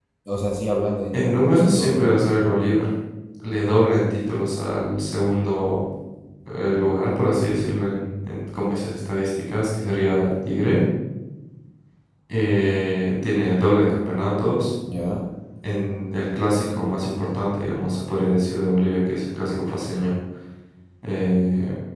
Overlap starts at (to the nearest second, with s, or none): 1 s